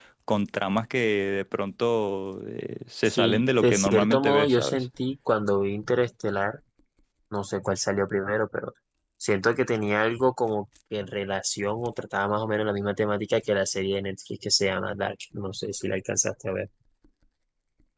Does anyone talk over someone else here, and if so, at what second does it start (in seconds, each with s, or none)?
3.0 s